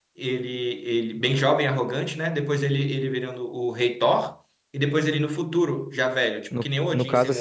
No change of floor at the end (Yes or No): No